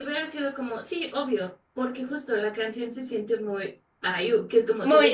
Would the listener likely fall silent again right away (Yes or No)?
Yes